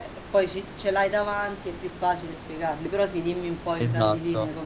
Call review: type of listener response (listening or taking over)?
taking over